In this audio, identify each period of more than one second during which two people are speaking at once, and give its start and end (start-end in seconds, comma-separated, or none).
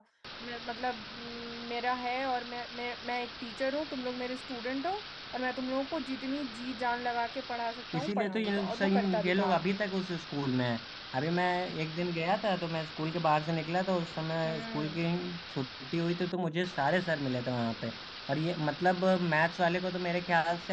8.0-9.8